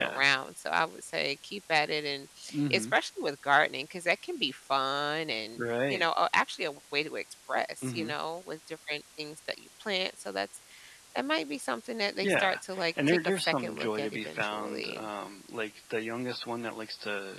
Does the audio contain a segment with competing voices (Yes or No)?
Yes